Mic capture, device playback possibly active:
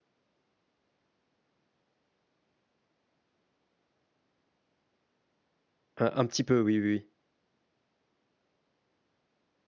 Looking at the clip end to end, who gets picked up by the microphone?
user only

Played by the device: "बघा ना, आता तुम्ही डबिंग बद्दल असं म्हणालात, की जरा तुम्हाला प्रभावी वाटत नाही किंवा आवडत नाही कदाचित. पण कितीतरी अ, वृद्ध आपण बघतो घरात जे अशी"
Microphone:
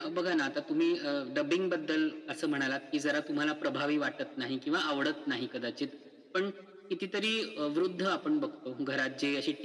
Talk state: echo only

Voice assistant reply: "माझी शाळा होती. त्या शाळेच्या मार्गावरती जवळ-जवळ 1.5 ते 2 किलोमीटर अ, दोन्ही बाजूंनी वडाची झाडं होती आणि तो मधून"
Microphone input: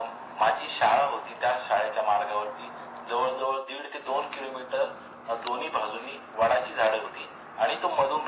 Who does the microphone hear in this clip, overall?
echo only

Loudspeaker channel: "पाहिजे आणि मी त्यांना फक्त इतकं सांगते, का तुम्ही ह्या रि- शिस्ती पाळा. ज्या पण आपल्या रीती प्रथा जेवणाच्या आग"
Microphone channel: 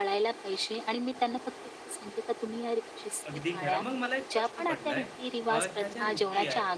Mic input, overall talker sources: both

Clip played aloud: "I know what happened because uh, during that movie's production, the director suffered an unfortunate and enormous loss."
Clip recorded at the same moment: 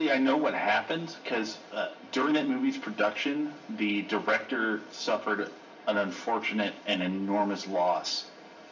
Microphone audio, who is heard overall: echo only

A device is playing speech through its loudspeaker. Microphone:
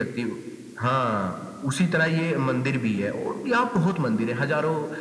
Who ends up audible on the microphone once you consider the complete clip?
echo only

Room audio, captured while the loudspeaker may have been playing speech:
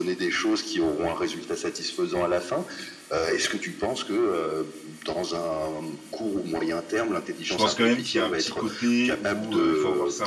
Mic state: both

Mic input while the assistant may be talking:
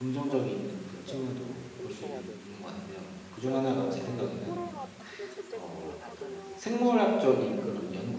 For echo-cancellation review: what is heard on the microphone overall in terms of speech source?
both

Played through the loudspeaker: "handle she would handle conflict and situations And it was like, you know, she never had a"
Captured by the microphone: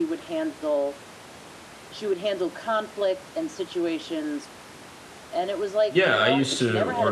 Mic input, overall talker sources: both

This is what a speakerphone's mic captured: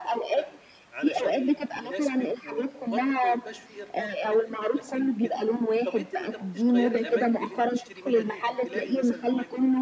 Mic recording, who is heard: both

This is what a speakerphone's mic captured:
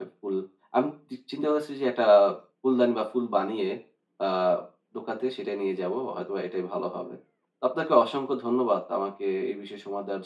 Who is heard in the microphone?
user only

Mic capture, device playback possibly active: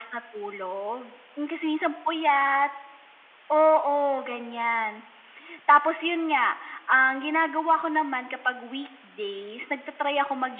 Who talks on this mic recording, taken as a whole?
echo only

